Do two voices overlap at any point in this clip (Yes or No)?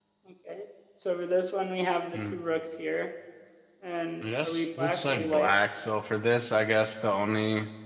Yes